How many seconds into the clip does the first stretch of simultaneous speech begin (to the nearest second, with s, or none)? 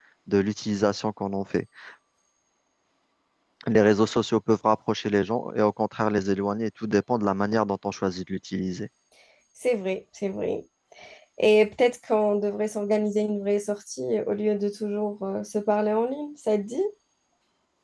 none